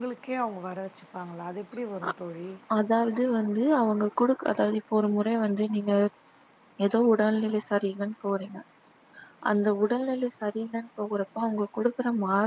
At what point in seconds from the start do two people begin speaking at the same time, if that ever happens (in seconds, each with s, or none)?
none